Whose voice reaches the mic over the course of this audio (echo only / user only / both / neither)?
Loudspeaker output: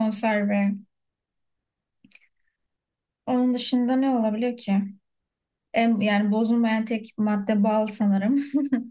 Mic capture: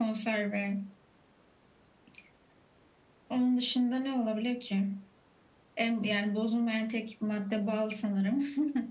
echo only